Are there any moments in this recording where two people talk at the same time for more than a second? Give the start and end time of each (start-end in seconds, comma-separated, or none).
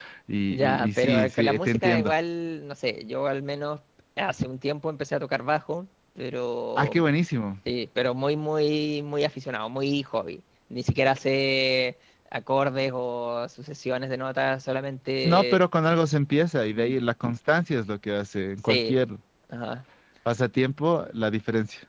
0.5-2.1